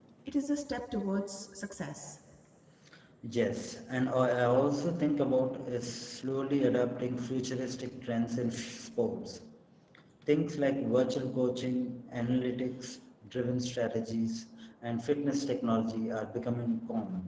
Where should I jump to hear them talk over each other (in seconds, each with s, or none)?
none